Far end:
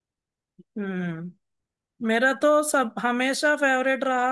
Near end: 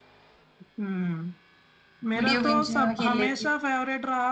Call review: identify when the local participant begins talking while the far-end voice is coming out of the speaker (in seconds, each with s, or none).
2.2 s